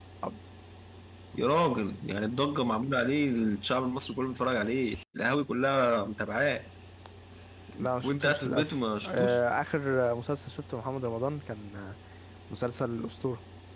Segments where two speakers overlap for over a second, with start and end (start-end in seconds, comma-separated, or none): 8.0-9.4